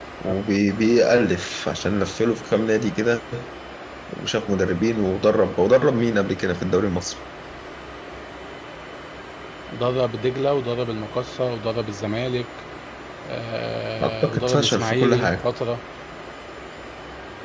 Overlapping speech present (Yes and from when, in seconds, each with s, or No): Yes, from 14.0 s